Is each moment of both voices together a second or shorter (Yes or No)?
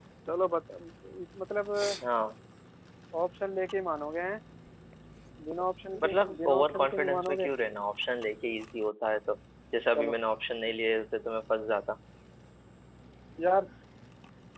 No